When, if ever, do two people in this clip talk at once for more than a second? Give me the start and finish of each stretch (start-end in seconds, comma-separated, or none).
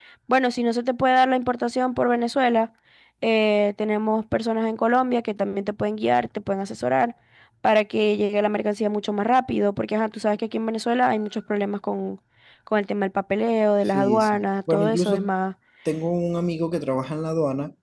13.9-15.3